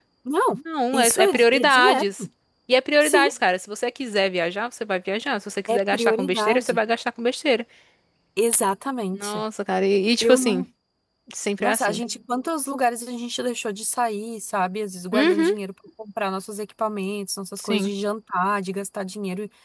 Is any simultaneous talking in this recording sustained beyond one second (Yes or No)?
Yes